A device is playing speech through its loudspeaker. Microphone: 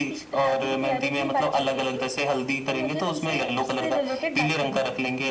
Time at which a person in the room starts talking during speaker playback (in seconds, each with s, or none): none